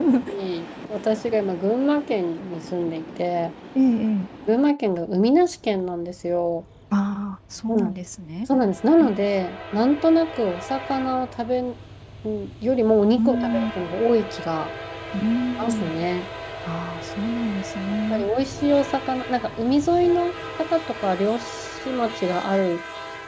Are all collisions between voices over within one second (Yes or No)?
Yes